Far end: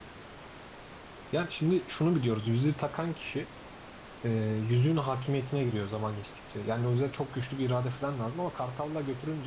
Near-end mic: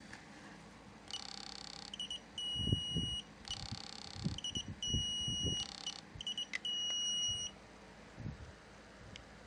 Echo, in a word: none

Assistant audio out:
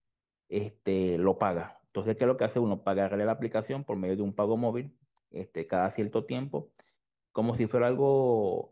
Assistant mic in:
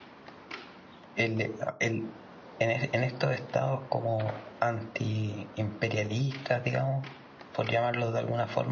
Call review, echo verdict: none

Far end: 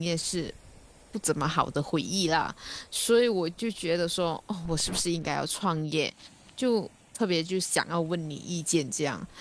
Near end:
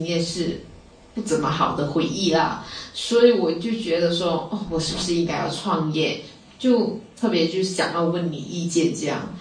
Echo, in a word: present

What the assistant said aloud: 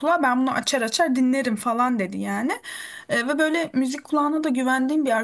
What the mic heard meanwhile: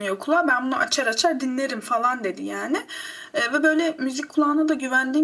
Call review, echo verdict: present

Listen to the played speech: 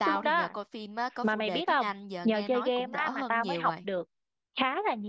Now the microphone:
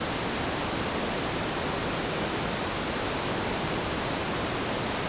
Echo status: none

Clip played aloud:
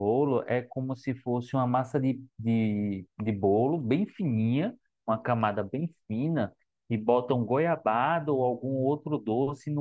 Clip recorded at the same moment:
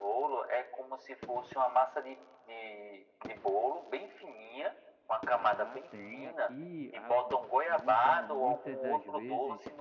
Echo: present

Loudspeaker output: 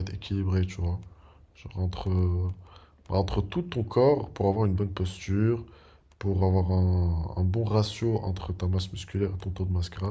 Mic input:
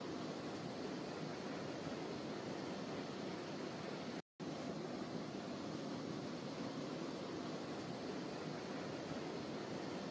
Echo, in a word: none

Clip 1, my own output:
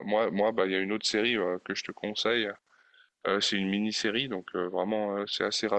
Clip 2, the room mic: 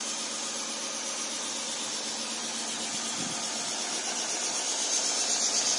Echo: none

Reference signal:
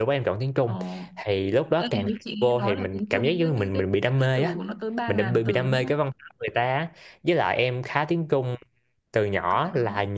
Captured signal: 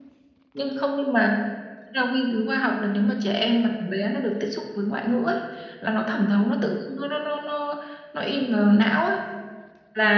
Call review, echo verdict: none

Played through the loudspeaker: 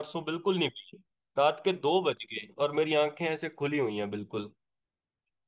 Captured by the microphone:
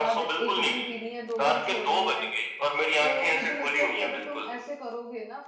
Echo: present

